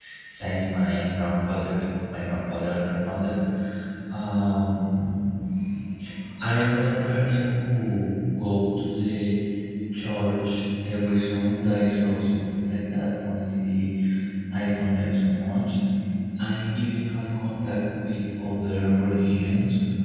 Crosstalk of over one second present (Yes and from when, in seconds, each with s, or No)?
No